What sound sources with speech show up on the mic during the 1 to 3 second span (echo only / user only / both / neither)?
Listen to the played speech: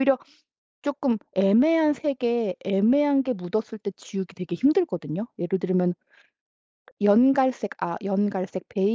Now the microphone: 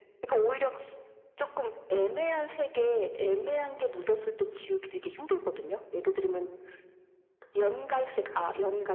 echo only